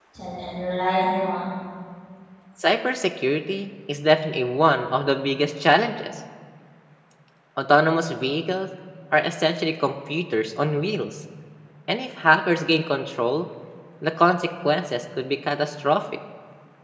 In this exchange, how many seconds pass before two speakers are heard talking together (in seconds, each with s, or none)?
none